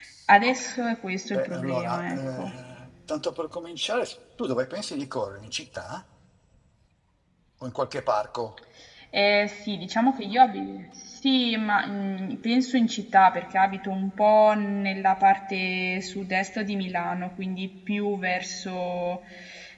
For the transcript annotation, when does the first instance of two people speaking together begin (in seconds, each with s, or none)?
1.2 s